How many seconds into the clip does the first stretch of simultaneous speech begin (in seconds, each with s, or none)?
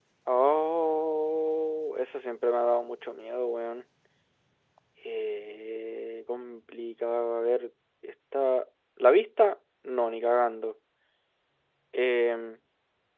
none